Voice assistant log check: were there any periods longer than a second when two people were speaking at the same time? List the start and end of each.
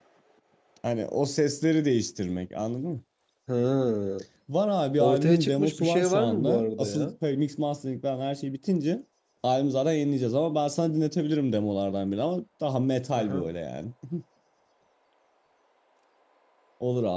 5.0-7.1

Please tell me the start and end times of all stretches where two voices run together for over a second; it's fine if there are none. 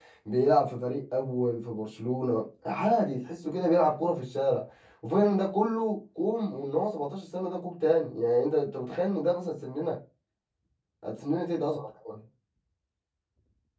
none

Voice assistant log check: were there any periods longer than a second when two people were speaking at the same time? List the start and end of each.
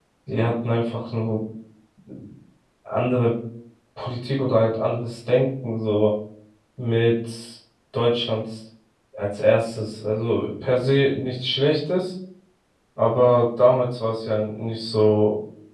none

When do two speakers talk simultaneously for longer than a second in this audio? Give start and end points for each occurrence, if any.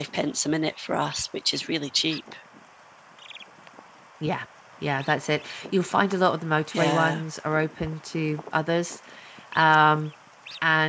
none

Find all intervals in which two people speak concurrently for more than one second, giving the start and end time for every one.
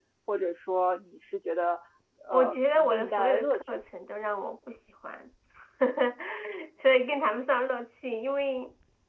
2.3-3.7

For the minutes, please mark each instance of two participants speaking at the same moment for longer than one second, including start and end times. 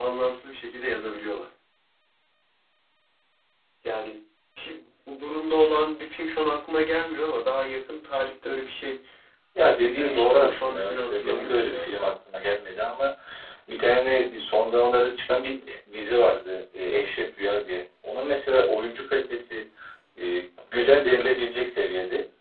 9.7-12.0

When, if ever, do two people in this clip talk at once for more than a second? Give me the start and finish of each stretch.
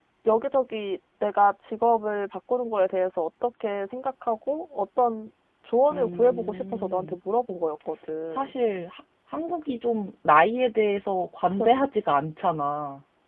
5.9-7.2

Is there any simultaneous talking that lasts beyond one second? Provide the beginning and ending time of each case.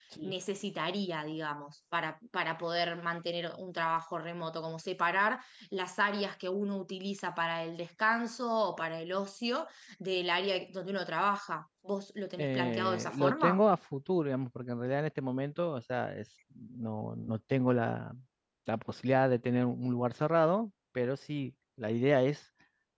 12.4-13.6

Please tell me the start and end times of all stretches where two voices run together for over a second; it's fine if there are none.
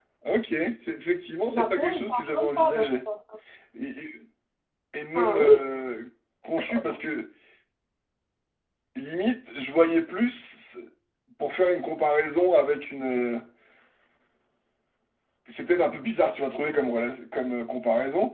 1.5-2.9

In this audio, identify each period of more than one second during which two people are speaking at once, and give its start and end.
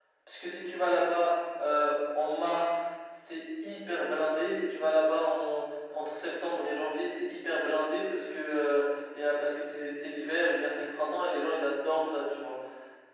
none

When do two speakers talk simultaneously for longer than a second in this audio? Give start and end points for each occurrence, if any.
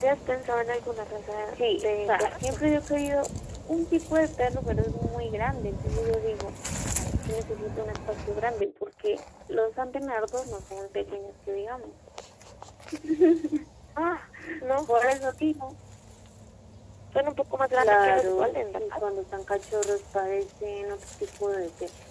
1.3-2.6, 17.8-19.0

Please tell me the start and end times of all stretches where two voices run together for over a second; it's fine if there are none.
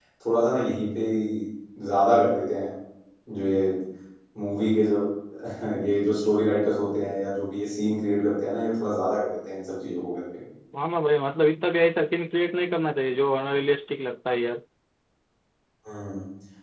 none

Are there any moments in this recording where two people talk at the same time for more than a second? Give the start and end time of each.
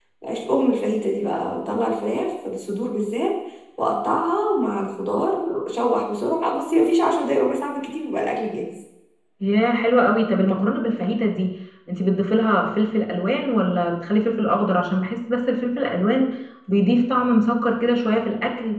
none

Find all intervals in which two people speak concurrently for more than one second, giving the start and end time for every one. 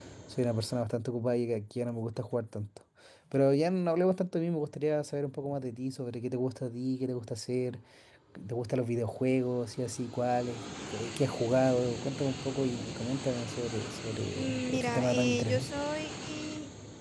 14.3-15.7

